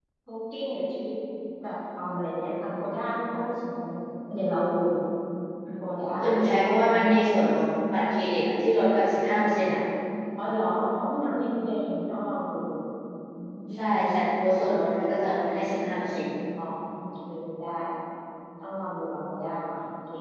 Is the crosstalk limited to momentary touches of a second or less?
Yes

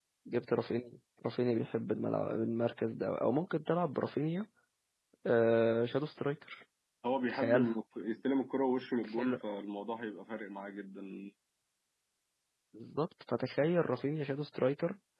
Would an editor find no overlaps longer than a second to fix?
Yes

